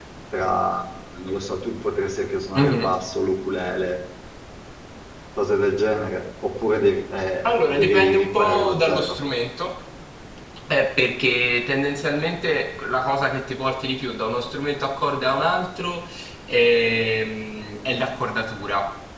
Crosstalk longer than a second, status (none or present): present